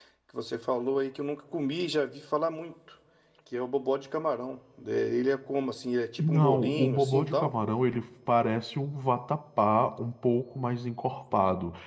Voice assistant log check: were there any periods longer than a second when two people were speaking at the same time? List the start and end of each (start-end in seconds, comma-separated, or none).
6.2-7.5